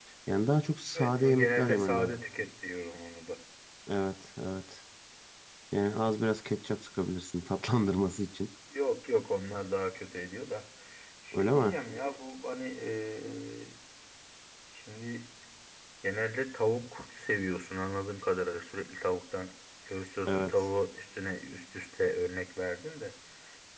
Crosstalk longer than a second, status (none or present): present